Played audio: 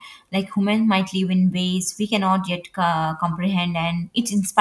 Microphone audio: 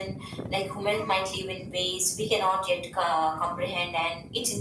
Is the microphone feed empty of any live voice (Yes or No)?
Yes